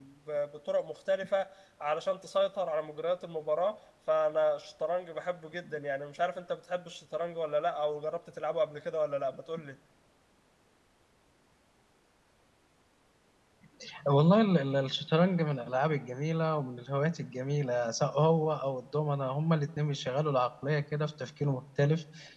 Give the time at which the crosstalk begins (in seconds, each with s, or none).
none